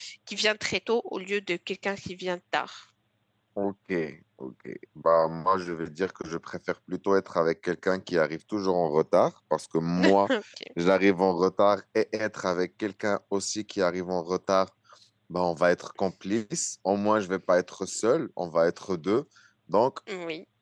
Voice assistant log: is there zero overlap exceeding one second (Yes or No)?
Yes